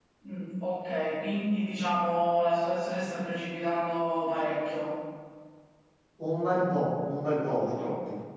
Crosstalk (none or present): none